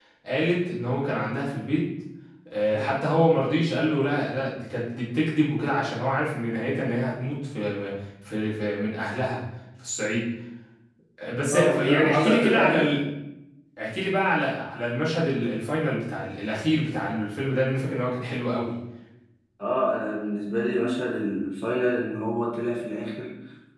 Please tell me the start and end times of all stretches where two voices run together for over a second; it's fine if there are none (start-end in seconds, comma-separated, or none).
11.5-12.9